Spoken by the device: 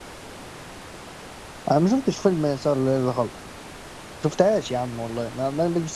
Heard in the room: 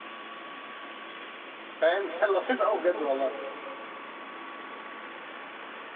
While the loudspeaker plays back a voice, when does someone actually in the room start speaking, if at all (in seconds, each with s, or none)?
1.8 s